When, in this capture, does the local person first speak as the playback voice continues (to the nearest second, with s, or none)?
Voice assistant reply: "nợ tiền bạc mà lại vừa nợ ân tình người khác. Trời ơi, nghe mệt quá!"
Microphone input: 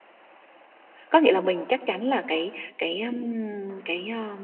1 s